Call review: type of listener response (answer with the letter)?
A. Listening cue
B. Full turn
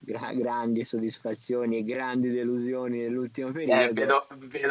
B